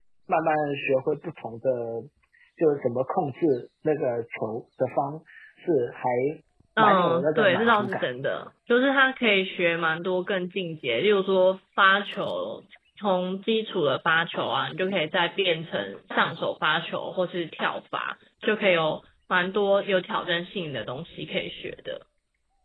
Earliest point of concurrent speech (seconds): 6.8 s

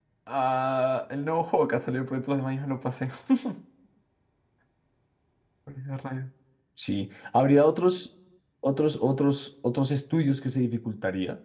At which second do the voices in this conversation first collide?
none

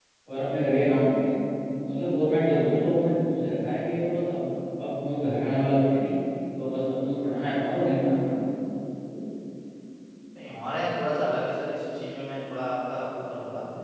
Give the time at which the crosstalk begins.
none

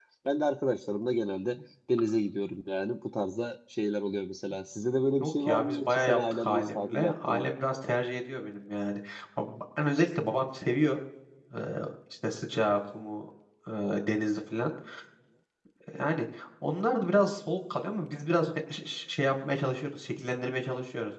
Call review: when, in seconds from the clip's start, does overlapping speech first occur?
5.2 s

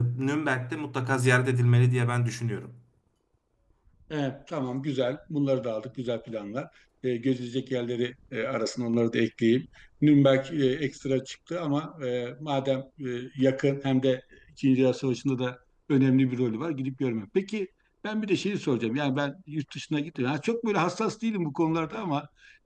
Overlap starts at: none

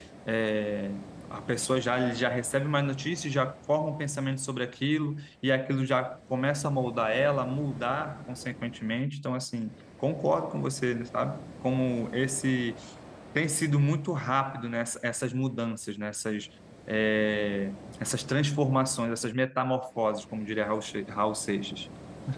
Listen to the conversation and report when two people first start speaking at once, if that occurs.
none

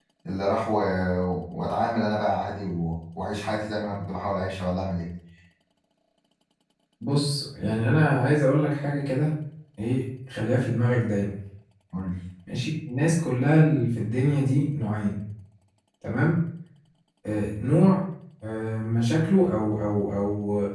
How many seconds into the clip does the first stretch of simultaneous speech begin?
none

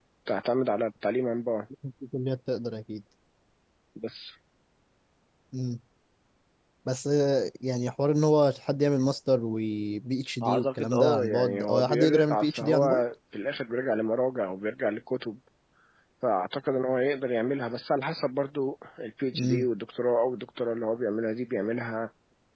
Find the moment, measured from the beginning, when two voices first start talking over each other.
10.4 s

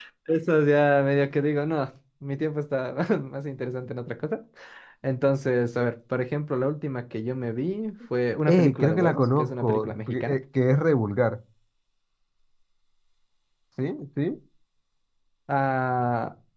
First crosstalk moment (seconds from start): 8.5 s

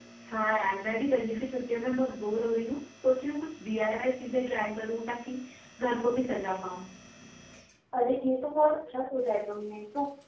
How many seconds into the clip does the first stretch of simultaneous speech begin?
none

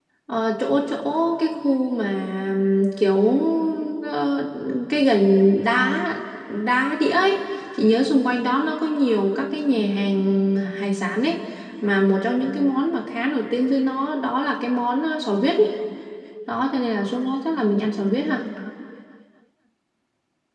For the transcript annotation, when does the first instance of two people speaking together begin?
none

